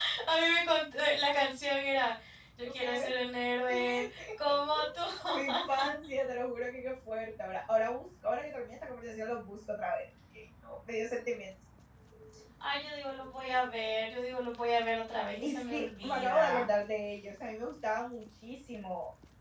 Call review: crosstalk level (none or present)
present